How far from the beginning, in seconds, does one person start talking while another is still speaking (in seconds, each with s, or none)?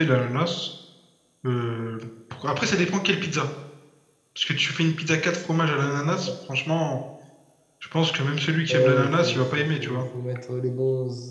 8.7 s